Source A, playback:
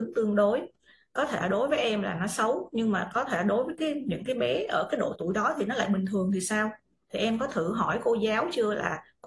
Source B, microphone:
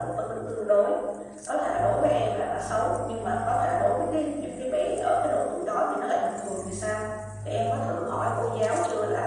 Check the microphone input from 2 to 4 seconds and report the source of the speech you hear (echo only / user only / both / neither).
echo only